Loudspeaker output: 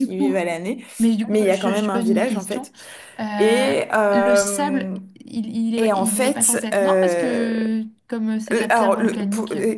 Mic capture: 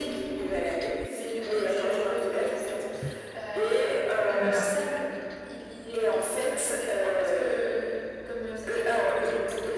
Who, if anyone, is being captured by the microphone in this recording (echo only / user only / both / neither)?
both